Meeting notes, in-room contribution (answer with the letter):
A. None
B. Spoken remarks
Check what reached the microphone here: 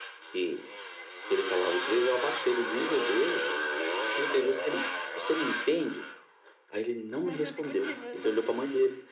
B